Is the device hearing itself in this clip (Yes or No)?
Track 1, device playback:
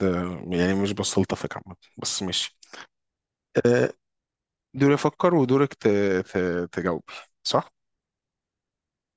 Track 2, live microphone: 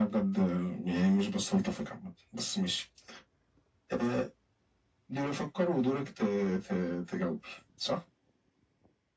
Yes